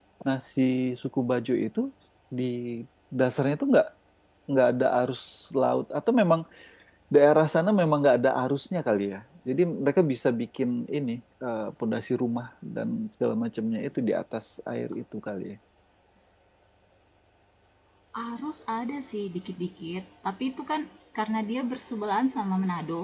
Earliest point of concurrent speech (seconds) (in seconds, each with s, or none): none